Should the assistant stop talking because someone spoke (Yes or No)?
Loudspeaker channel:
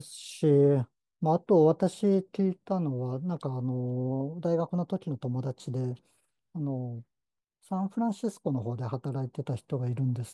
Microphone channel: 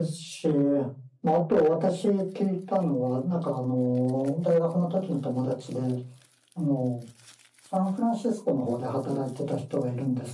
No